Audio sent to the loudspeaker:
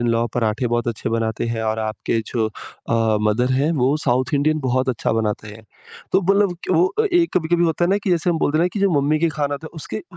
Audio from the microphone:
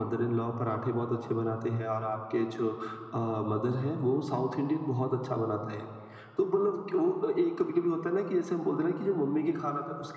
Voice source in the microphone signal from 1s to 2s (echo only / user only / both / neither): echo only